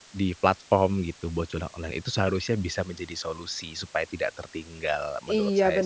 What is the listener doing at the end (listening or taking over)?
taking over